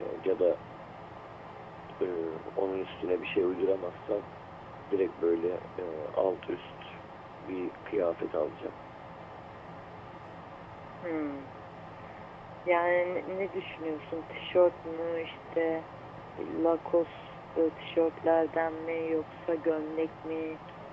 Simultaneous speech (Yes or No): No